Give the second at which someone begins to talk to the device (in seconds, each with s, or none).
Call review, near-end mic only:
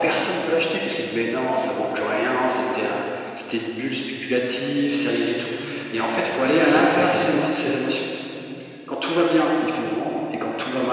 6.7 s